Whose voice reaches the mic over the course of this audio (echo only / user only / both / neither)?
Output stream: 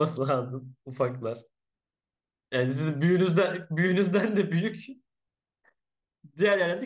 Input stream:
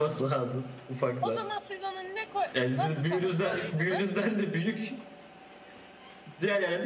both